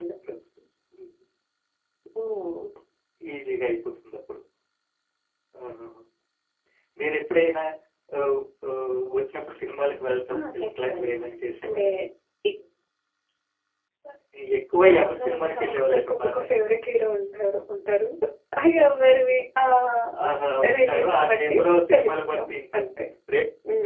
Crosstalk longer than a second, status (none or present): present